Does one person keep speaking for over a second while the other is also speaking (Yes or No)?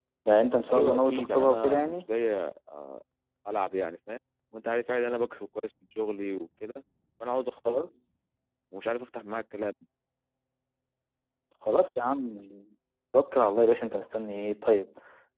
Yes